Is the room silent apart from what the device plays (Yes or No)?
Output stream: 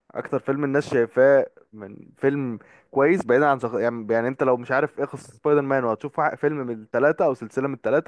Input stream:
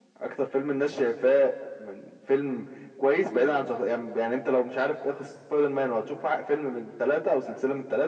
Yes